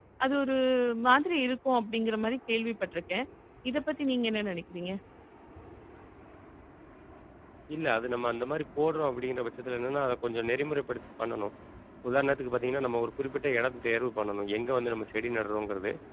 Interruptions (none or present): none